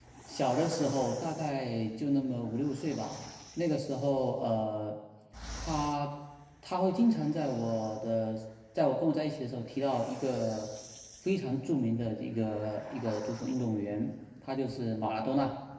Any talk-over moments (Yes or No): No